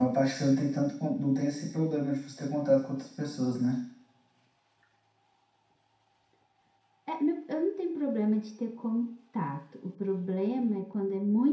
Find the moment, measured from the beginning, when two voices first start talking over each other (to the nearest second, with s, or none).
none